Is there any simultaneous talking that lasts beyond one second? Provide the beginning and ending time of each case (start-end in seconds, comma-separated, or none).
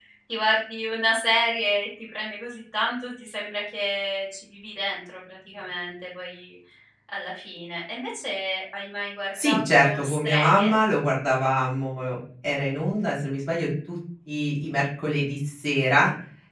9.4-10.7